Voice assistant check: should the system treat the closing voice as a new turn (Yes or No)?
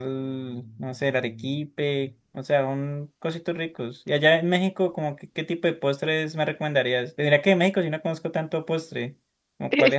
Yes